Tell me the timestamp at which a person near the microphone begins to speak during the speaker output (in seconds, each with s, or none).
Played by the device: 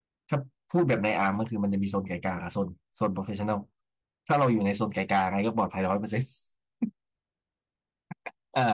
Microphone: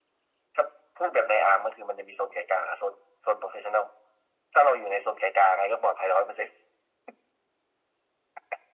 none